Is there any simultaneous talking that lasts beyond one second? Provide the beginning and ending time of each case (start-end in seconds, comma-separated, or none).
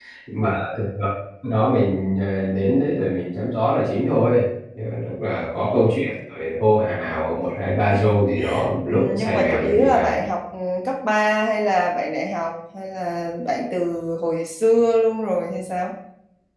8.9-10.2